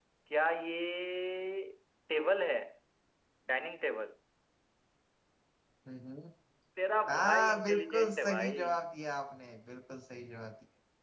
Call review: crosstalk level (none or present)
present